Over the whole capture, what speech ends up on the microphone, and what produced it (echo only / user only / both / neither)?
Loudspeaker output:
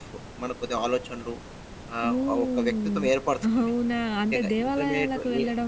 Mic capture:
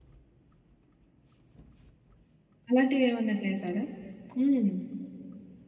user only